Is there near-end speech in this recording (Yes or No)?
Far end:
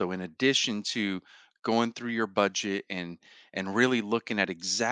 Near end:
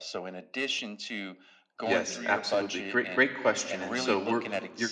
Yes